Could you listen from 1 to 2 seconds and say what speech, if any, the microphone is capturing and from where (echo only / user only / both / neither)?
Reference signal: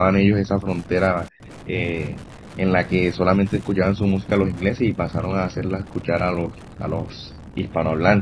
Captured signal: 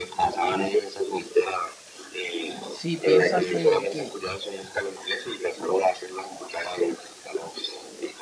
echo only